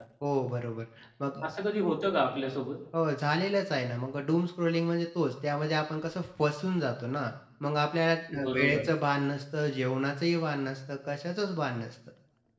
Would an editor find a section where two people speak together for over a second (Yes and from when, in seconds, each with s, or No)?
No